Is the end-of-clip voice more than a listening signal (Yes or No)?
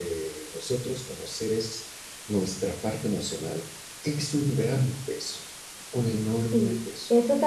Yes